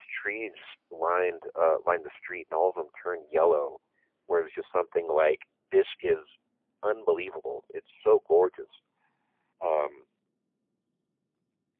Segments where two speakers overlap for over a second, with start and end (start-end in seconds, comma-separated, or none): none